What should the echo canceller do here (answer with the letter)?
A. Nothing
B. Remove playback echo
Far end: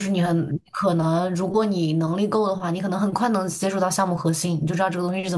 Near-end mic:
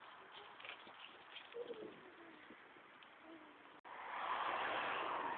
A